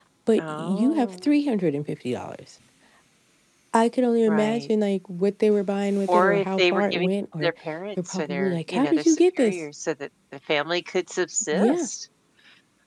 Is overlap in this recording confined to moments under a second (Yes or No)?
No